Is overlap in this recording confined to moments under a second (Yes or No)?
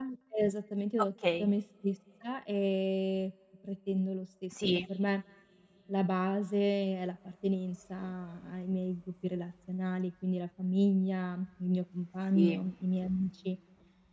Yes